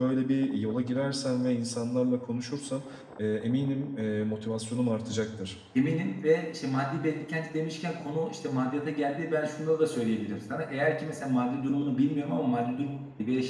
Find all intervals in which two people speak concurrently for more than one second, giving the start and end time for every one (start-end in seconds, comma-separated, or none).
none